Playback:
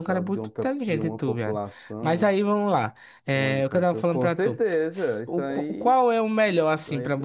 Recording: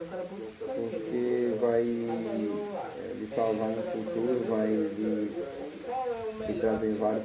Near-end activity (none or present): present